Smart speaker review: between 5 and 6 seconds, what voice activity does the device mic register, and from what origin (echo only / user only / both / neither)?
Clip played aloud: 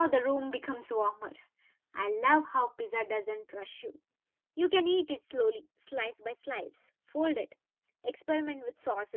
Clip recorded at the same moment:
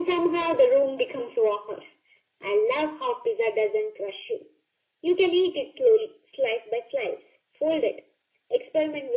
echo only